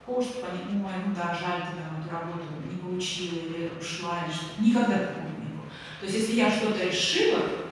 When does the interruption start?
none

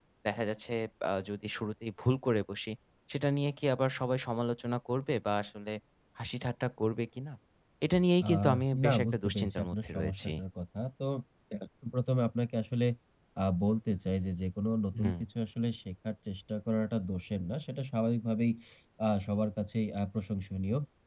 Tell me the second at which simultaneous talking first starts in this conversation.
8.3 s

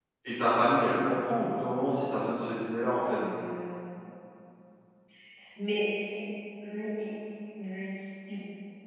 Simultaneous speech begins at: none

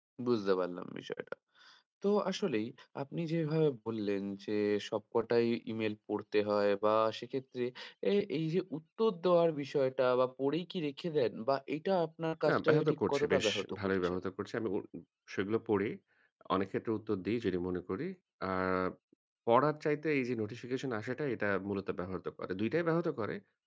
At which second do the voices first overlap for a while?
12.5 s

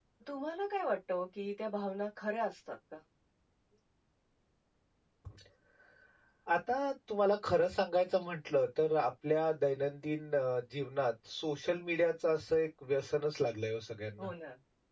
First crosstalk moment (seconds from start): none

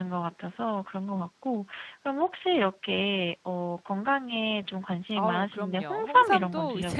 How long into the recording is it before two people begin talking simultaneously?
5.2 s

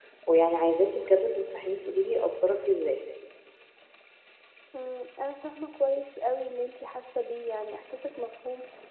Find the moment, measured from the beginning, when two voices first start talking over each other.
none

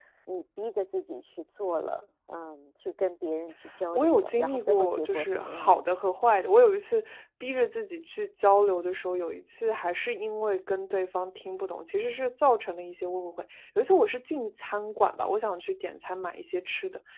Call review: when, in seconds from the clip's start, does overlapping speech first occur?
3.9 s

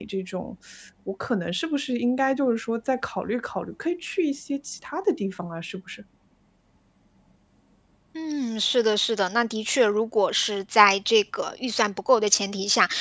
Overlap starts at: none

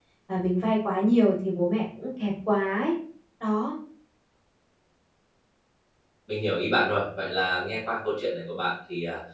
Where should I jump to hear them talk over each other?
none

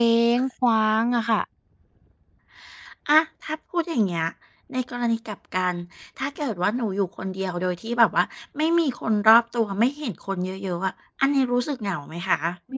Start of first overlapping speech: none

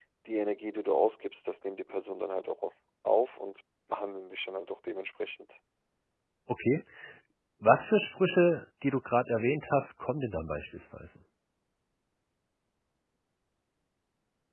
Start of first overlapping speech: none

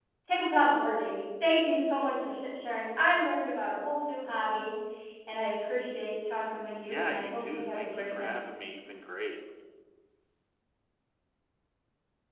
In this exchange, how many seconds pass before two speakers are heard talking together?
6.9 s

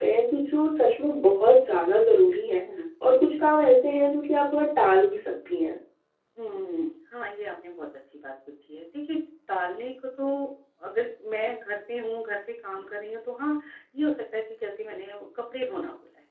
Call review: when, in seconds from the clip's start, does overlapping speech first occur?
none

